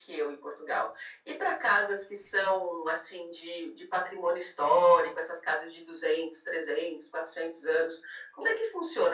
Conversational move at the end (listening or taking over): listening